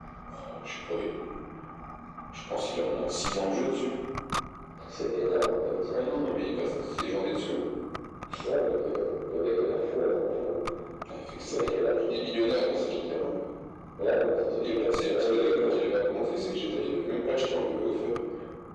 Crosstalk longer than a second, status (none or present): present